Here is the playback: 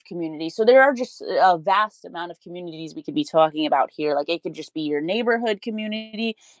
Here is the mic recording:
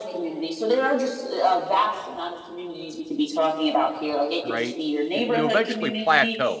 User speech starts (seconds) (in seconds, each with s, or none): 4.4 s